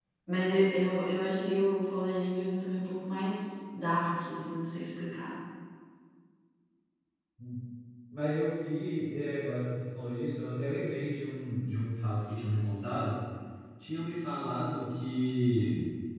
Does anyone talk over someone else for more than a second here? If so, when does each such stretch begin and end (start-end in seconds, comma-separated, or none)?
none